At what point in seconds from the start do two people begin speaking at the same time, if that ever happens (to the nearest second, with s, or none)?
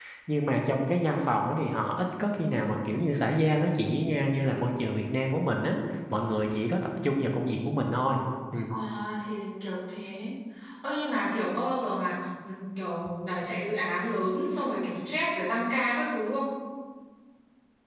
none